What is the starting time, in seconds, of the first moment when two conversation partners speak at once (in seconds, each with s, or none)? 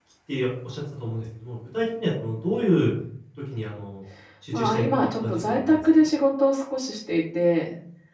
4.5 s